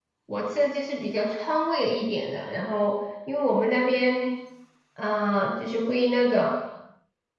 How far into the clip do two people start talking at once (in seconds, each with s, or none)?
none